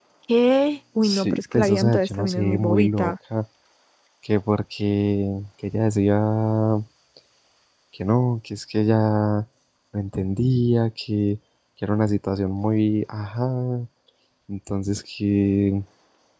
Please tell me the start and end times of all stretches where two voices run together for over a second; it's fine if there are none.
1.0-3.1

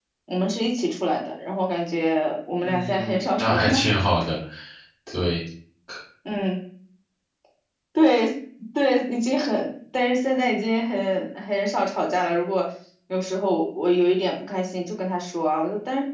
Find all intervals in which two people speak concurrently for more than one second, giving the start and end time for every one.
2.6-3.9

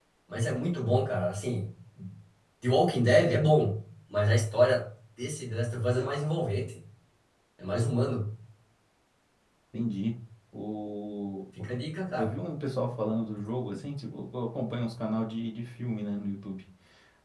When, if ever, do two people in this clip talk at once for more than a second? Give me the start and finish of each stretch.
none

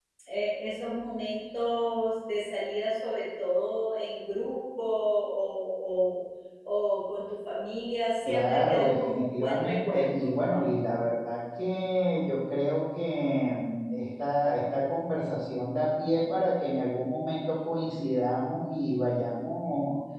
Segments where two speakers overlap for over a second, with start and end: 8.2-10.3

